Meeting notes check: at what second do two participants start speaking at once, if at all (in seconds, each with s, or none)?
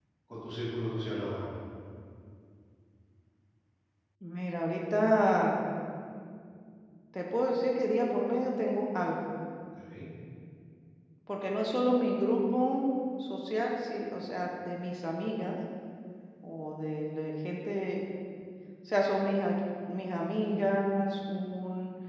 none